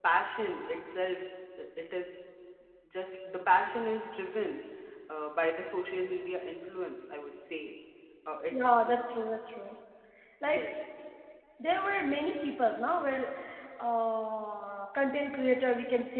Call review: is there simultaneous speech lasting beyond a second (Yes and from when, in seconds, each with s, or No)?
No